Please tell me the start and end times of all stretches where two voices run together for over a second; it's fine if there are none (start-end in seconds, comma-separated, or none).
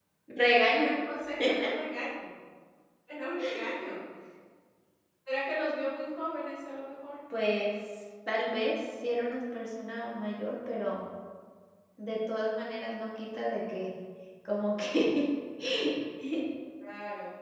none